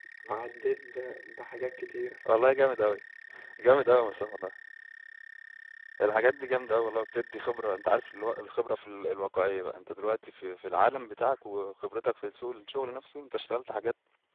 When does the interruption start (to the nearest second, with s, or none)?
none